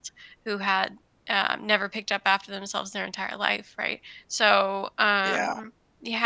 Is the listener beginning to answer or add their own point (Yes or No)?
No